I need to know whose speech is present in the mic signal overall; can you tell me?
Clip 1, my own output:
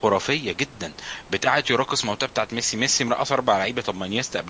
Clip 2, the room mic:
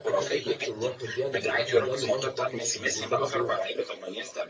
both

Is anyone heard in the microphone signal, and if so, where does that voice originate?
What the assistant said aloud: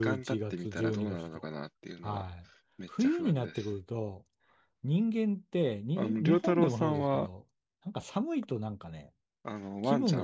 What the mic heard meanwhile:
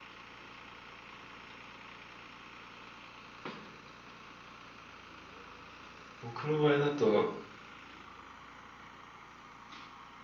user only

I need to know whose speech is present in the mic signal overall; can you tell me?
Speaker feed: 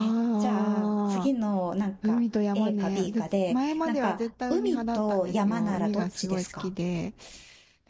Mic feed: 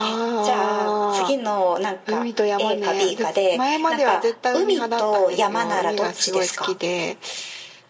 echo only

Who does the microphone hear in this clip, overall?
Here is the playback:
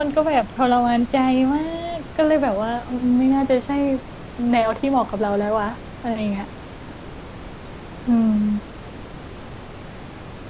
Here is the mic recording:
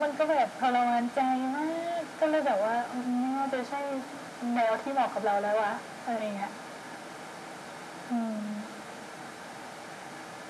echo only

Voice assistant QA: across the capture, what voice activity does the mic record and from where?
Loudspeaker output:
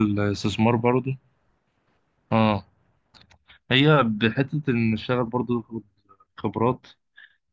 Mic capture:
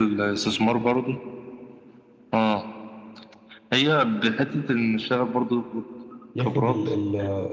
both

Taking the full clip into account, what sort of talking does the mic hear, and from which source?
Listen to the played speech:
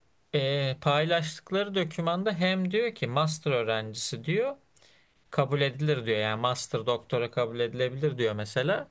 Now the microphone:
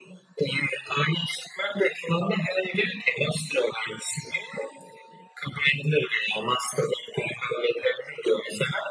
echo only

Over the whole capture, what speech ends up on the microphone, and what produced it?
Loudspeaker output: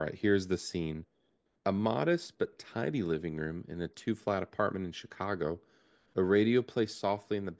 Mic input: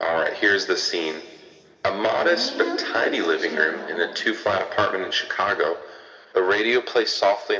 both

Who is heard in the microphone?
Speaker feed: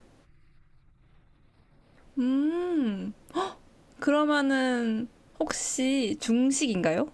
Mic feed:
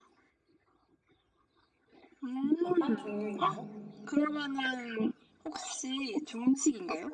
both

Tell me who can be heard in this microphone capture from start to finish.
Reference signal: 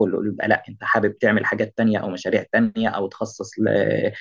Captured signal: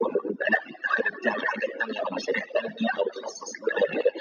echo only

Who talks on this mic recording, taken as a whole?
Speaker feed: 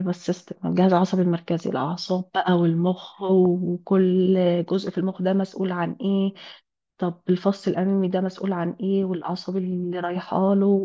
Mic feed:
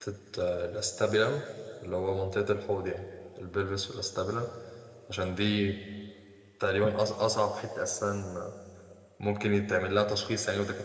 user only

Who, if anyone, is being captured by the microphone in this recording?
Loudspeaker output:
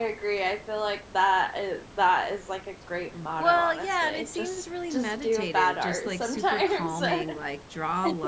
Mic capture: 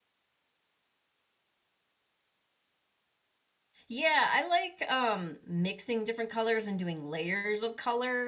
user only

